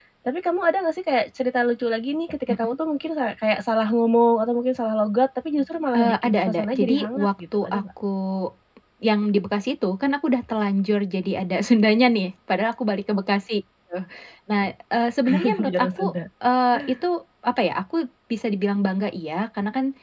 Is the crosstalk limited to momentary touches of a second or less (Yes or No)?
No